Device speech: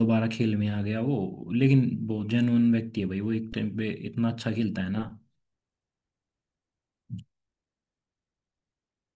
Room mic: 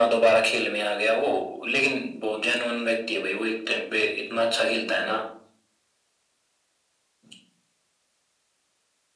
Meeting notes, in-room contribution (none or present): none